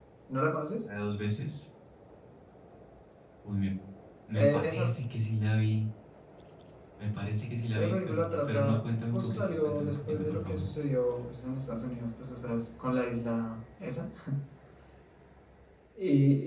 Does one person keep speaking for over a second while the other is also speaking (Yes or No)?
Yes